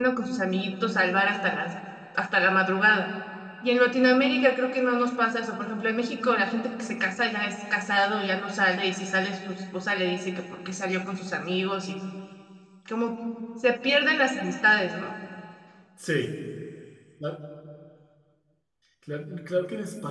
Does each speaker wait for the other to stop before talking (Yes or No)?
Yes